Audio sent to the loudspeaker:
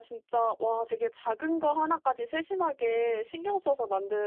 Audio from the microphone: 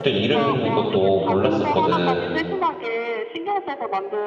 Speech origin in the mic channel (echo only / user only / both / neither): both